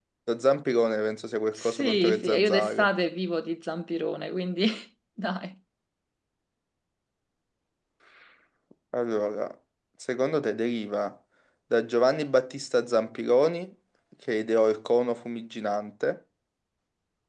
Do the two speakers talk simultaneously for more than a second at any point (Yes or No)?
Yes